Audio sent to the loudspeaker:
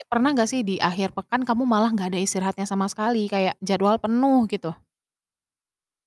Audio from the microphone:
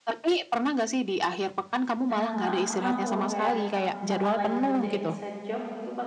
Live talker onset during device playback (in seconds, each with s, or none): 2.1 s